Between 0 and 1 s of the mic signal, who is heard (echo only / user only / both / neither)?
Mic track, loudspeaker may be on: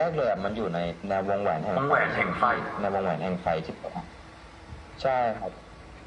echo only